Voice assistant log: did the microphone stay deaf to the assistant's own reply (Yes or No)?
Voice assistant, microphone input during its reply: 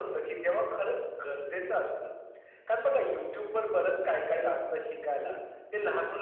No